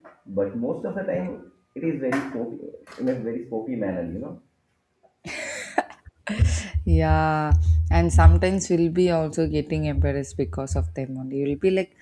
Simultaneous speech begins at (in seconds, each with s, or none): none